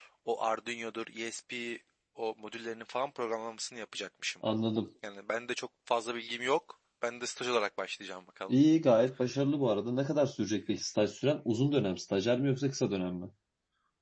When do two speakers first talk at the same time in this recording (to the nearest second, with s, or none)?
none